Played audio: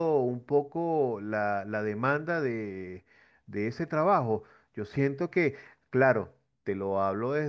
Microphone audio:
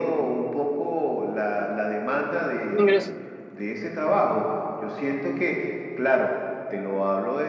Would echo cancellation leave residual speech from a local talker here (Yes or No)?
Yes